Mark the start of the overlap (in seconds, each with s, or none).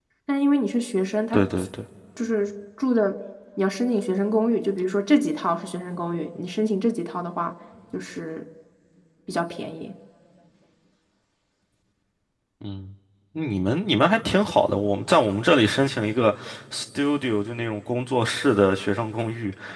none